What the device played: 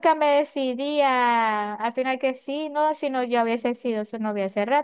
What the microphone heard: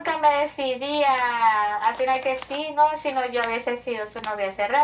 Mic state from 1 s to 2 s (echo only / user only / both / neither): echo only